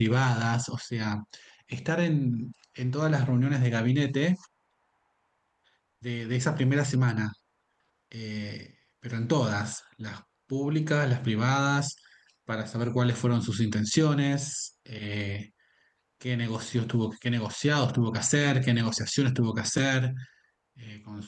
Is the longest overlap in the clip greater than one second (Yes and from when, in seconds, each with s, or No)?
No